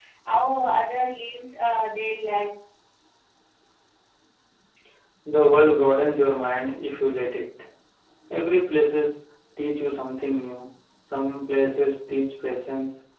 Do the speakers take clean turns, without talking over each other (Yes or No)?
Yes